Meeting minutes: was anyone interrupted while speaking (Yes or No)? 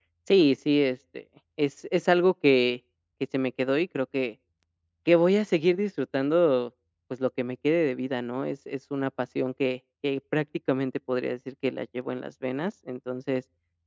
No